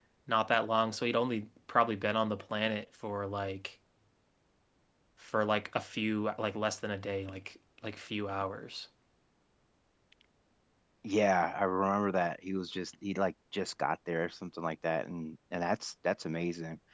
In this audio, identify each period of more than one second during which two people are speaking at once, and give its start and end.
none

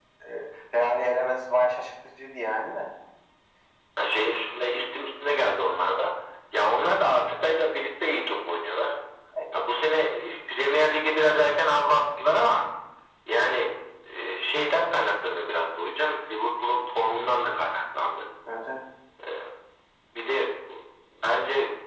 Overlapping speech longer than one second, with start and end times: none

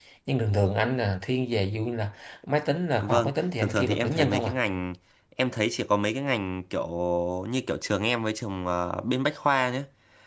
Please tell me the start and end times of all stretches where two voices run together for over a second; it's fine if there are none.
3.0-4.6

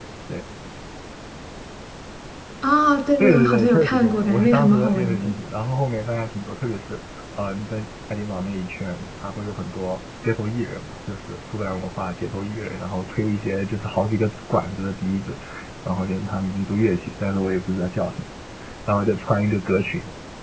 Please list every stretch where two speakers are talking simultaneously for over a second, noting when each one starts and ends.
3.2-5.3

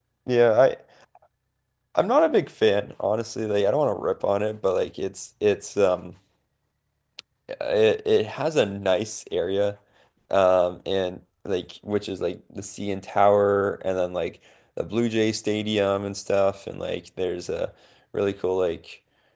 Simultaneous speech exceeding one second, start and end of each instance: none

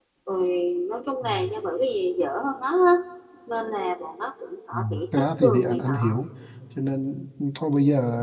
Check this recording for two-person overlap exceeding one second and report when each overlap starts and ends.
4.7-6.2

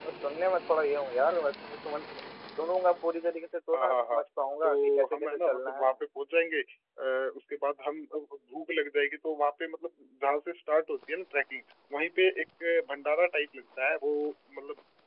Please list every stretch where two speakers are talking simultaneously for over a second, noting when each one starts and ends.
4.6-5.9

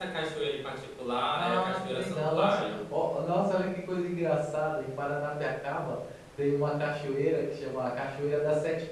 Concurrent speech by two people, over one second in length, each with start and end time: 1.3-2.8

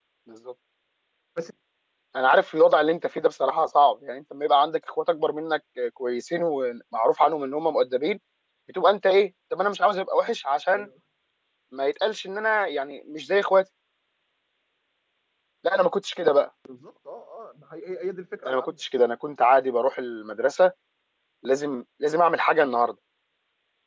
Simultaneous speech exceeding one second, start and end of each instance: none

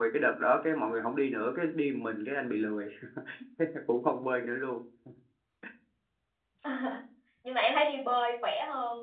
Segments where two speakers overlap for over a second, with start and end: none

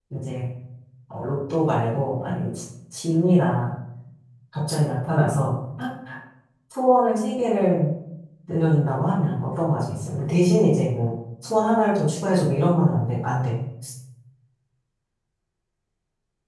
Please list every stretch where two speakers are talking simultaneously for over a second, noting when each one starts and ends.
none

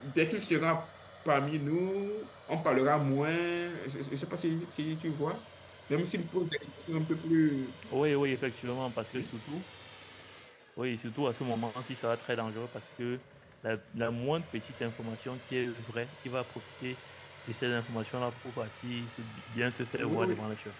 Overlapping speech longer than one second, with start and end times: none

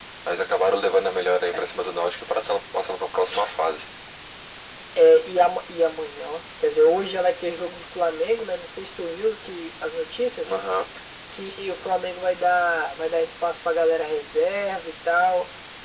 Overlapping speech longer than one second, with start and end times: none

